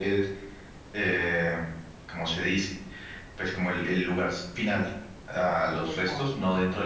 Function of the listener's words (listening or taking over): listening